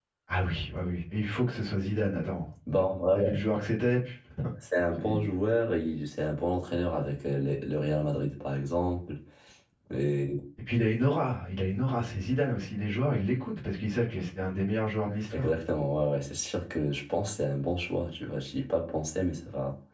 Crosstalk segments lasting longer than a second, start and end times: none

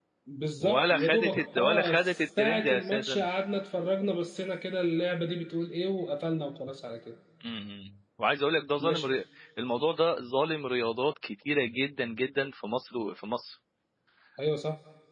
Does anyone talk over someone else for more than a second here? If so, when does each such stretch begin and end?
0.6-3.2

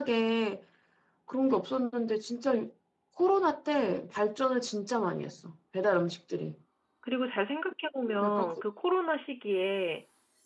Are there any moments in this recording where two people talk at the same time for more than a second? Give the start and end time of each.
none

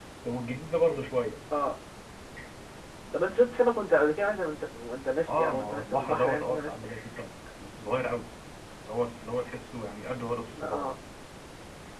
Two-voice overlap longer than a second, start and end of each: 5.3-6.8

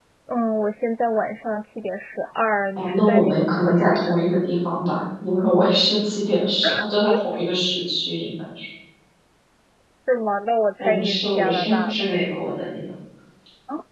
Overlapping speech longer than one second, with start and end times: 2.8-4.1, 10.8-12.1

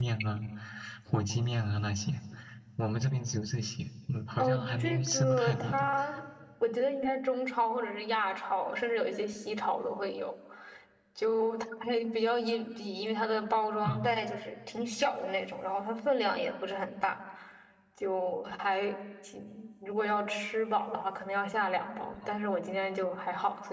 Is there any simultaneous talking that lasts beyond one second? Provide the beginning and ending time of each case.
4.4-5.9

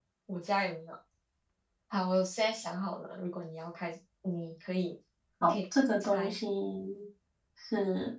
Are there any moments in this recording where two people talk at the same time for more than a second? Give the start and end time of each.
none

